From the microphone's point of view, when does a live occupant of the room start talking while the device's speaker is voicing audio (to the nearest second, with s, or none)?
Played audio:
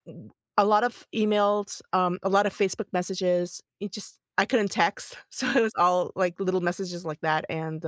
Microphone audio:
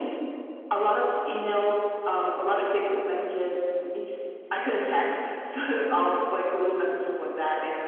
none